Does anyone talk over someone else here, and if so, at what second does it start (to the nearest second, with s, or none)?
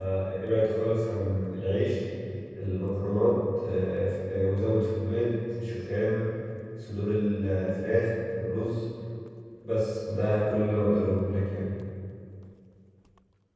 none